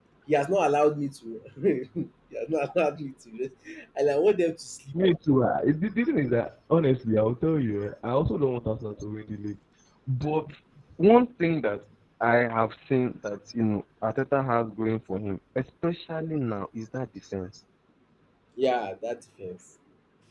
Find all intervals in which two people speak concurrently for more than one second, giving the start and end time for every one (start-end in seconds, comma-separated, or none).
none